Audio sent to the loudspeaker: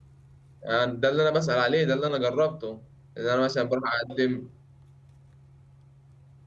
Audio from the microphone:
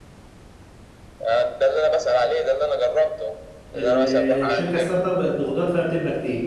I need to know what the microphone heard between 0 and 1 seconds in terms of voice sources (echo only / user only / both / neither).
neither